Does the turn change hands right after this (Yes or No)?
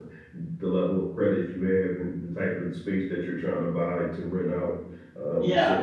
Yes